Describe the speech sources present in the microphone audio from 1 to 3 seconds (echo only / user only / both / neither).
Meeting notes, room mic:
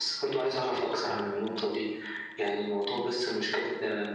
both